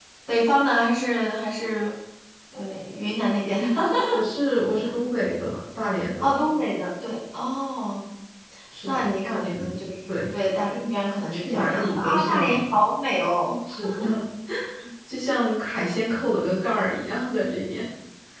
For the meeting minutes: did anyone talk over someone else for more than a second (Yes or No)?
Yes